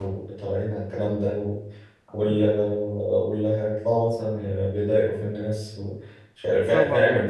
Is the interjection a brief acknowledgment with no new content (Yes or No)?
Yes